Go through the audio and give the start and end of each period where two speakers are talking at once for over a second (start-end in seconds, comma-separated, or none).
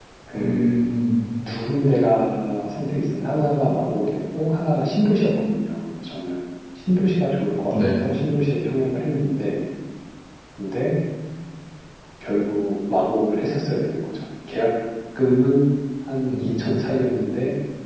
none